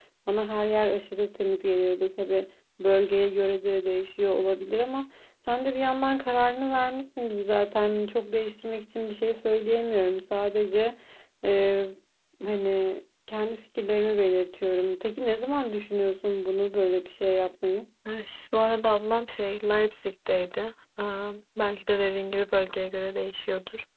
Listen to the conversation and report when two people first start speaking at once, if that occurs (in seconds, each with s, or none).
none